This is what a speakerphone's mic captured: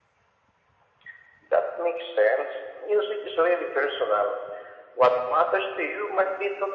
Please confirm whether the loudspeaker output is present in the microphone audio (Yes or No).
Yes